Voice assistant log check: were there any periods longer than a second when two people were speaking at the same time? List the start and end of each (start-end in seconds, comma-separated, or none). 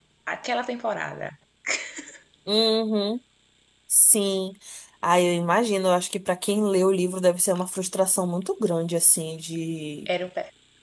none